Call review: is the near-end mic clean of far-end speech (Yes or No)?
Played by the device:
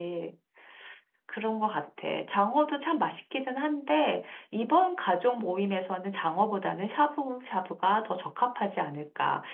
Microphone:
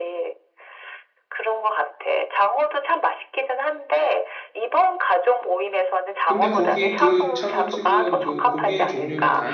No